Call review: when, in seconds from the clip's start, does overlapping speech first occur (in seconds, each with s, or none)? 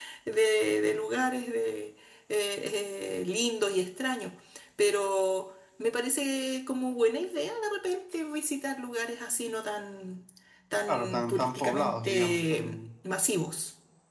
10.9 s